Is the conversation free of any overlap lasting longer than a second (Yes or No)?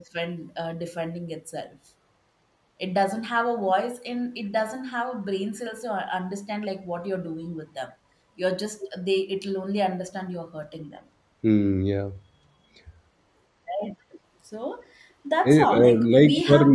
No